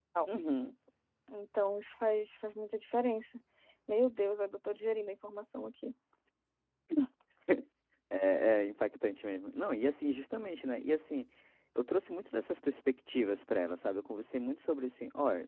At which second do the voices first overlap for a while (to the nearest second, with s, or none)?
none